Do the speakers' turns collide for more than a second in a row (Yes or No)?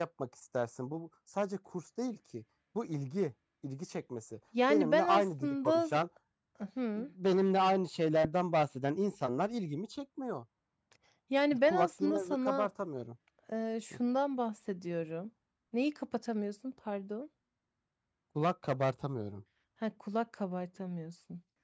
Yes